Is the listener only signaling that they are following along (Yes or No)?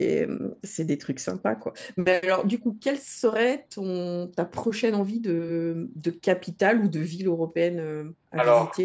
No